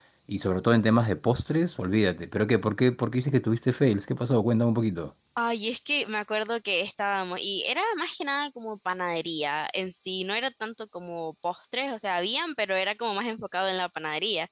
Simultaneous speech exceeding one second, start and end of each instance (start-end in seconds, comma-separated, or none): none